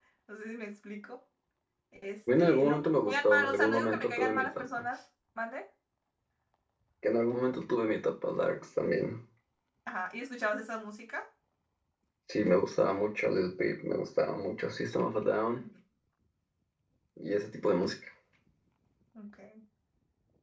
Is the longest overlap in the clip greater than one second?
Yes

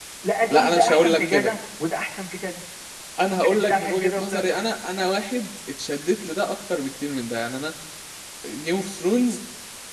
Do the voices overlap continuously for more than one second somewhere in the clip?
Yes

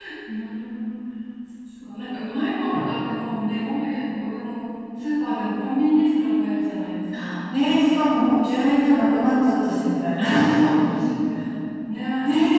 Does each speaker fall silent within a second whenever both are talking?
Yes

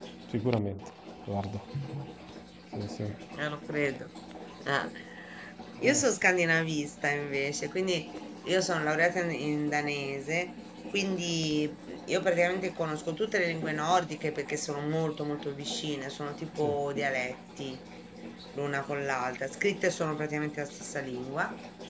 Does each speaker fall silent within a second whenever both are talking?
Yes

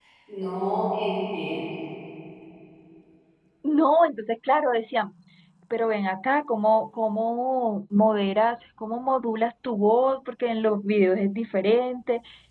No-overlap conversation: Yes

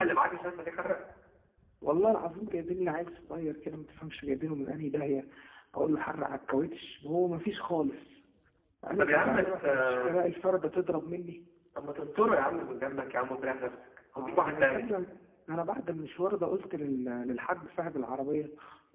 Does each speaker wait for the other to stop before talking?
No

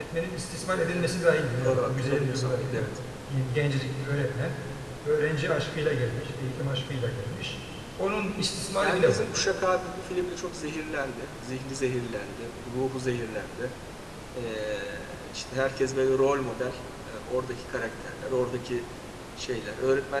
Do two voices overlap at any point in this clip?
Yes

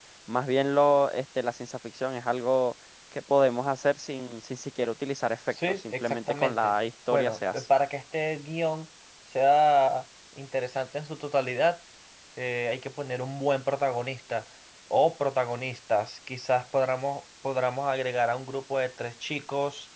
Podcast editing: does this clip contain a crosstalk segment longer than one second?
Yes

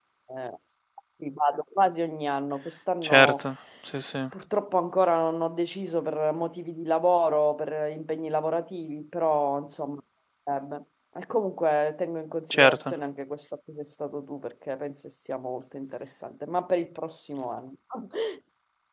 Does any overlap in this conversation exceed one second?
No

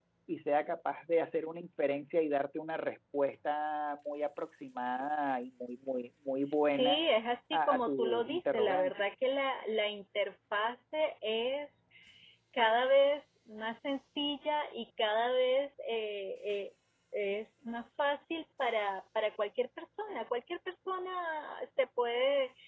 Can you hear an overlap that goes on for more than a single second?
Yes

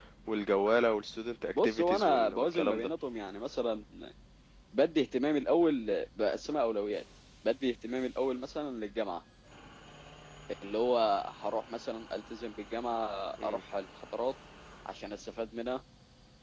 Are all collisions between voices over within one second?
No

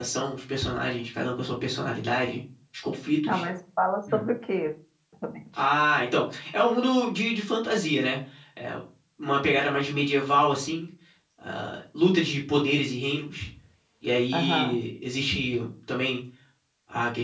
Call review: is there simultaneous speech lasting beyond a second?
No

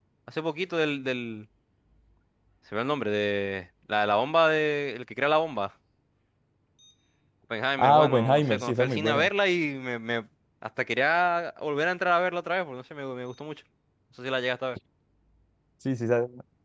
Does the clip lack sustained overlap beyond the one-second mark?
No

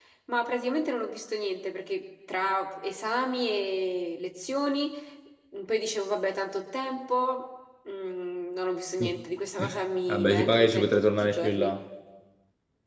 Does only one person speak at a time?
No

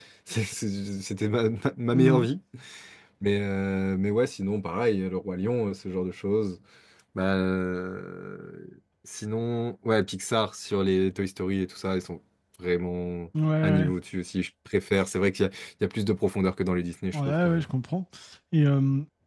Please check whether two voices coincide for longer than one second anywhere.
No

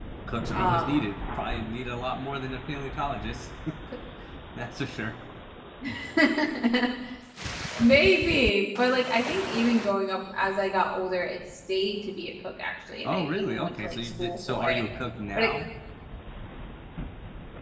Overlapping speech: Yes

